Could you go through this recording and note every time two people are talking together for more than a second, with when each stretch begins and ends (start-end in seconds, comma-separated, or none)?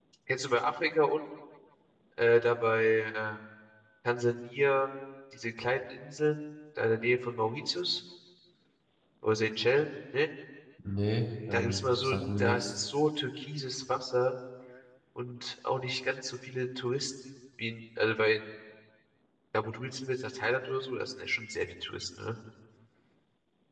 11.5-12.7